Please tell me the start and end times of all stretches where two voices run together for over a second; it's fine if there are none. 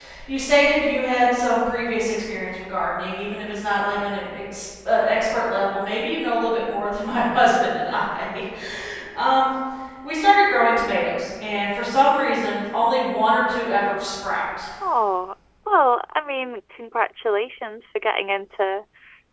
none

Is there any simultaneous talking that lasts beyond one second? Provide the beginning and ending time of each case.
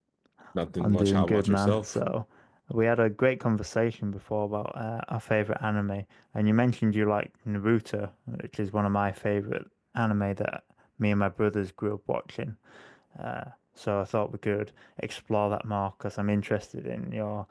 0.8-2.0

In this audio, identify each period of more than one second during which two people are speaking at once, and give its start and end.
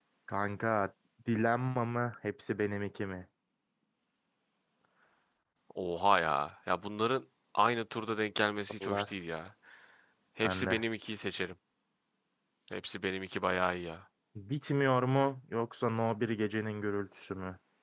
none

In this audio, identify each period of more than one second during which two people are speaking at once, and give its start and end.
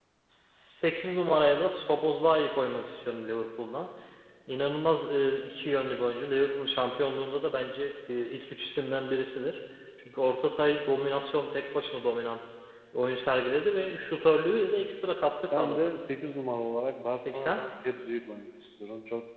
none

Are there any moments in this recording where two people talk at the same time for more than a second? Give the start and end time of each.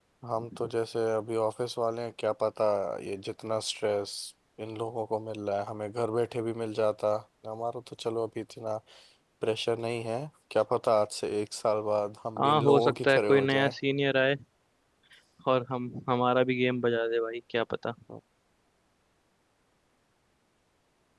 12.4-13.7

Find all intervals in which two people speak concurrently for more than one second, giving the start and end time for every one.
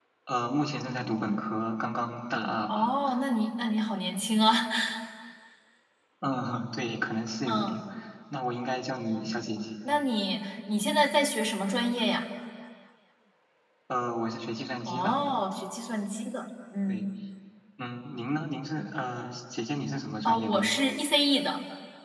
none

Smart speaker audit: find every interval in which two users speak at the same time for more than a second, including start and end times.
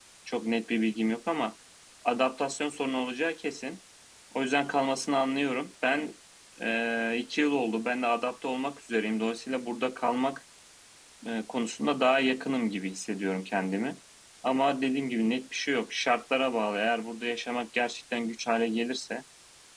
none

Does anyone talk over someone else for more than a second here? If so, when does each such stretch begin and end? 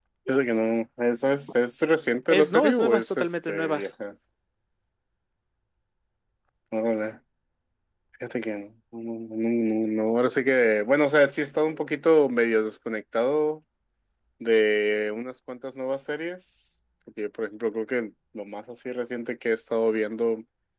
2.3-3.8

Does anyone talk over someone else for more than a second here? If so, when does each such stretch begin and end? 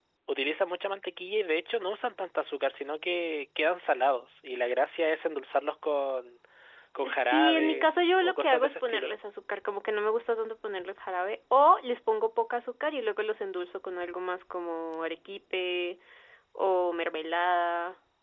7.1-9.1

